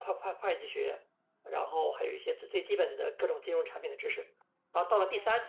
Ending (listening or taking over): listening